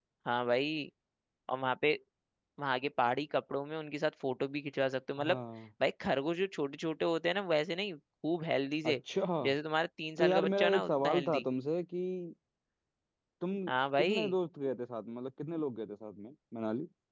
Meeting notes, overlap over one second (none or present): present